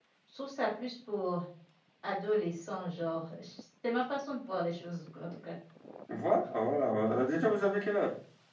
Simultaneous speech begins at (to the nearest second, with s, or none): none